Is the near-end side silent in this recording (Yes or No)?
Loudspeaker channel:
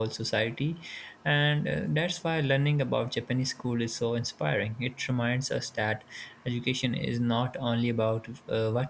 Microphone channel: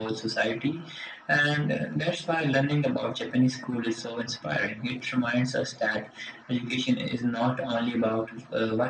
Yes